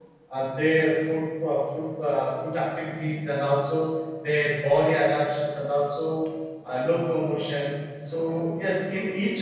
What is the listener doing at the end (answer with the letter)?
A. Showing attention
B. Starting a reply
A